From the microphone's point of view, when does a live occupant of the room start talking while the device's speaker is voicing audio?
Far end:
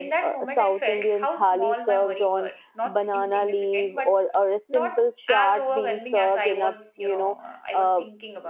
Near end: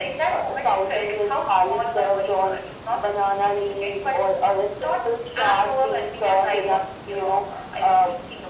none

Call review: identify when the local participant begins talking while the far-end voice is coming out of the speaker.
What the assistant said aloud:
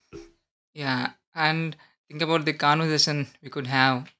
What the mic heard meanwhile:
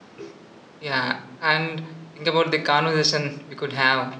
none

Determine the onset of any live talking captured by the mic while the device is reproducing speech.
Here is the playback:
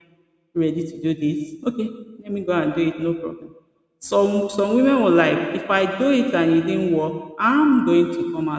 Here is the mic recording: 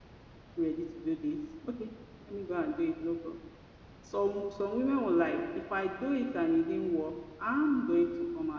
none

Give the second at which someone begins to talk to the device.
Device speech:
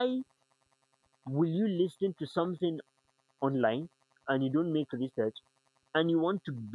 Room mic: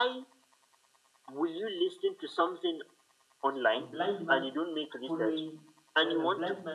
3.8 s

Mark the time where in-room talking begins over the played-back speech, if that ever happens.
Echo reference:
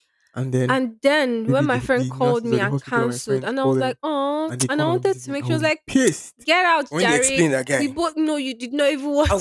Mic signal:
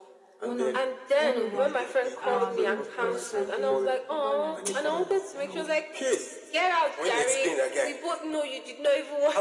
0.4 s

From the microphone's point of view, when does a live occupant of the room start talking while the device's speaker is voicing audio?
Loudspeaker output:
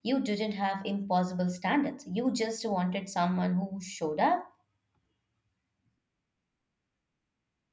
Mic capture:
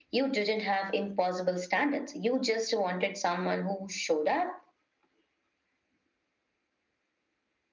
none

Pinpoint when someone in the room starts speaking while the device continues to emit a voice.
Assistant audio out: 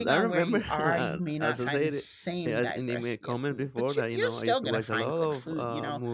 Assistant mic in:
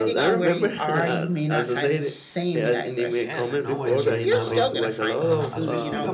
3.1 s

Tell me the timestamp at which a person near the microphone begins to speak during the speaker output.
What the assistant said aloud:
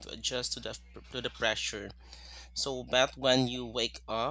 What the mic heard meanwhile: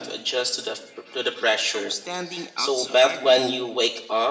1.6 s

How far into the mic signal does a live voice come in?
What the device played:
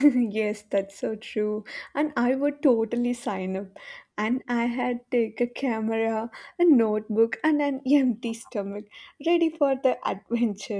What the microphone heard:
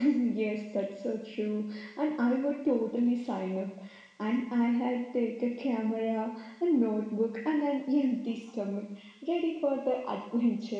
none

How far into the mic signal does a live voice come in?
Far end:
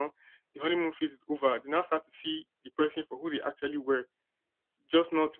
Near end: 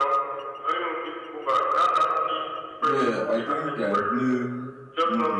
2.8 s

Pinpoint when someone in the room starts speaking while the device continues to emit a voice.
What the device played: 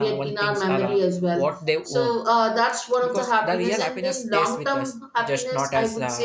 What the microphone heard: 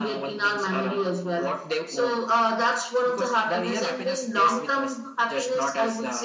none

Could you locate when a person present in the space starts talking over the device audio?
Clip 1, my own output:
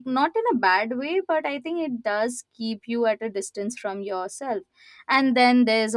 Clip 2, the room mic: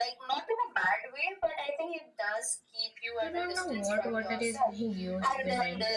3.2 s

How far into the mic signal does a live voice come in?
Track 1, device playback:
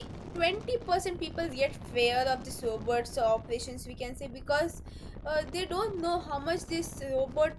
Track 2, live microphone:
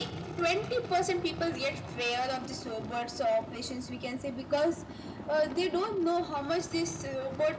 none

